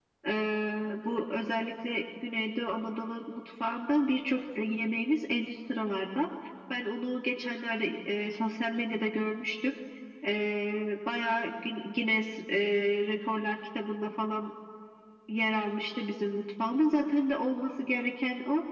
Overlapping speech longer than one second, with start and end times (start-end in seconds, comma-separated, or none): none